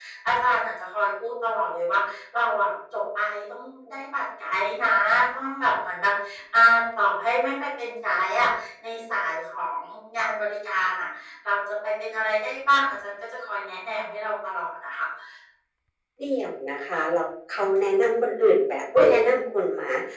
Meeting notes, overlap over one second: none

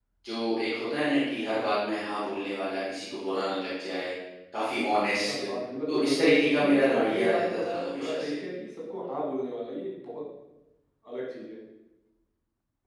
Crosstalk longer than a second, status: present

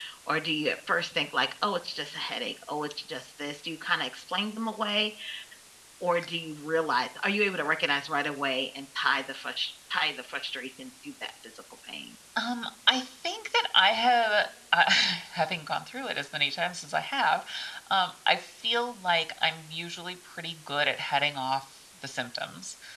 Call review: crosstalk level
none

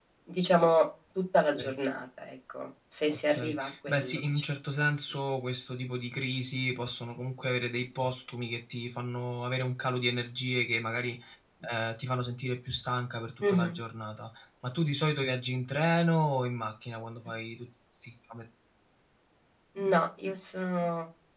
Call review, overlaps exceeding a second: present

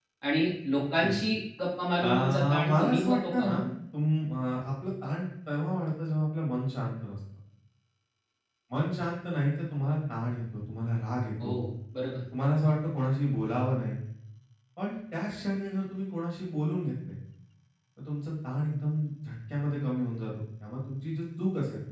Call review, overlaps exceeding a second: present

